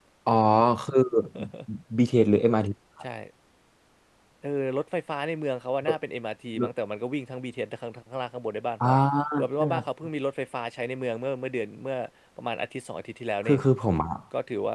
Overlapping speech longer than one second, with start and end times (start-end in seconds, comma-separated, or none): none